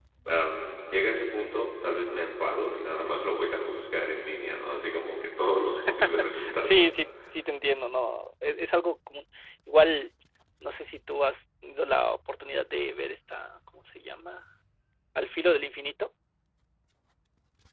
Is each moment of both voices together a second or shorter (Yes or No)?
Yes